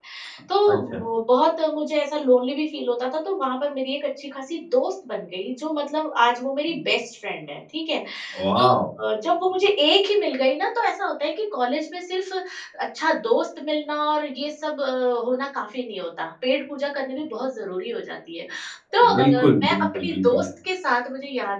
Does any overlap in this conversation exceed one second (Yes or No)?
Yes